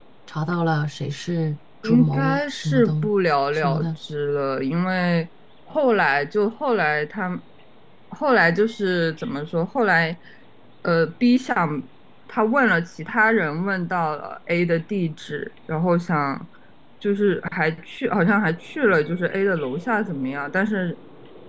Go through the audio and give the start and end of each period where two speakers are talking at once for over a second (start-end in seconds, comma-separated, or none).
1.8-3.1